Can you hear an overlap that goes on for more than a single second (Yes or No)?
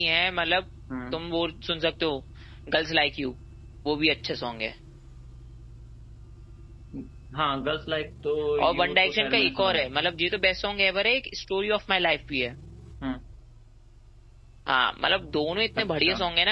Yes